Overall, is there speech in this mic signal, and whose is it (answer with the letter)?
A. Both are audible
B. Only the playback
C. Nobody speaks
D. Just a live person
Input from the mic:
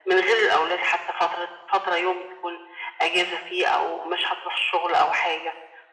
B